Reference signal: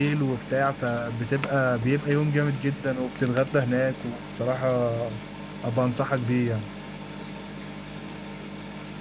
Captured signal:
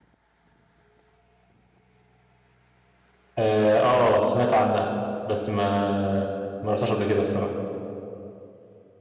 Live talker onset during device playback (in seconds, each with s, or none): 3.4 s